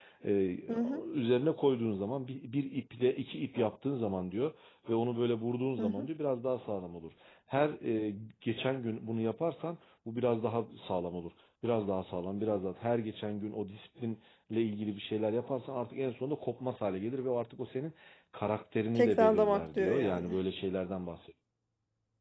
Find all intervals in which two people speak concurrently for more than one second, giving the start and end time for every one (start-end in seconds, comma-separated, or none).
18.9-20.4